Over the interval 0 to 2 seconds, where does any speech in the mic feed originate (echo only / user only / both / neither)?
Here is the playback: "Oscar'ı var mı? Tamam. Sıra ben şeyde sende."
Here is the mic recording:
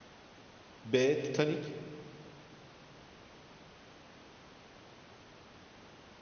user only